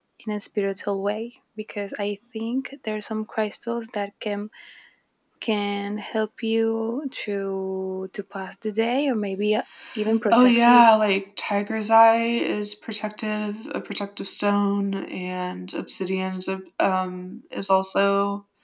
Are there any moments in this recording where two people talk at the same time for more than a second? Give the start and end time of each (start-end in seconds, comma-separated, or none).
none